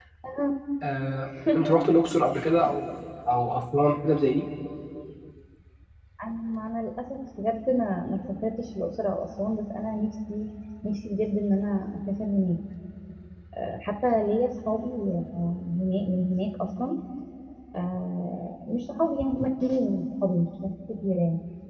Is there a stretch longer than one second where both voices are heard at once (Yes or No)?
No